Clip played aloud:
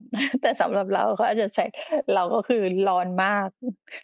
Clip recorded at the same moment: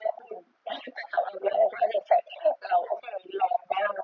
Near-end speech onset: none

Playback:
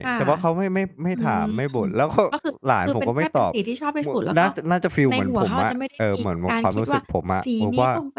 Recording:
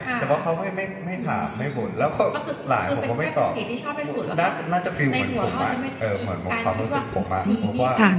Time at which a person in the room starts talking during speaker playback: 7.1 s

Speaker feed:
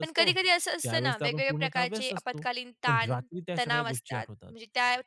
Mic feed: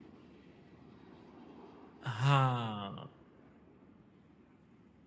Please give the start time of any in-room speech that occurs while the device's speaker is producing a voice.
2.1 s

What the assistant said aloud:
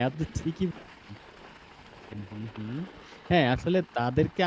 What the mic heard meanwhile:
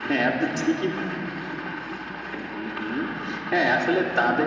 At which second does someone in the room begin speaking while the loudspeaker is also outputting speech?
none

